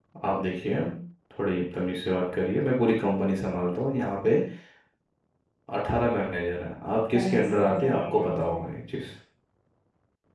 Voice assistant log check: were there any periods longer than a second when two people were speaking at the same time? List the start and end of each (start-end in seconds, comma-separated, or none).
7.2-8.7